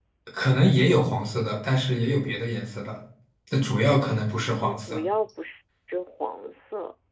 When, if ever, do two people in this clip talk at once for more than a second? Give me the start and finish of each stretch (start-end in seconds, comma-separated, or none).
none